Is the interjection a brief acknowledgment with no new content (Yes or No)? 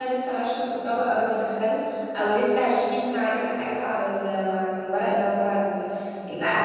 No